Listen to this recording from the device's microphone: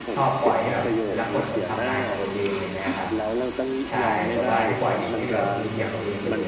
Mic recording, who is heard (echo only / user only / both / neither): both